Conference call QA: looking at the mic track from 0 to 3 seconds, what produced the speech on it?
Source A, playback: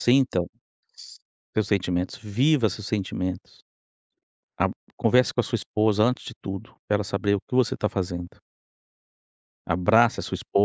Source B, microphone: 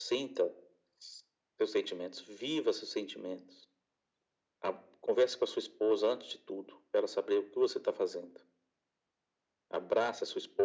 echo only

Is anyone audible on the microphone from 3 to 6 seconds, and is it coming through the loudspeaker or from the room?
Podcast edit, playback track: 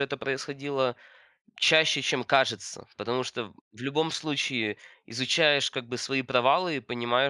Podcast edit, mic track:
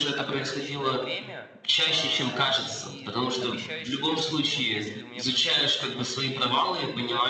both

